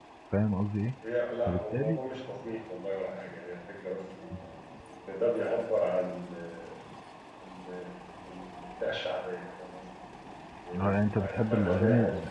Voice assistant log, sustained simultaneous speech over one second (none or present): present